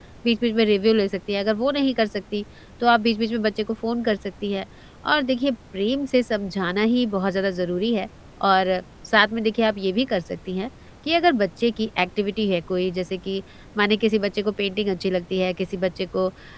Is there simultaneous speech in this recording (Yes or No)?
No